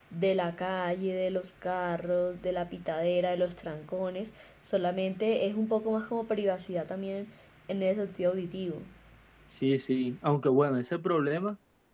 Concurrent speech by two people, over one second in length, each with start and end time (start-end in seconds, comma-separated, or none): none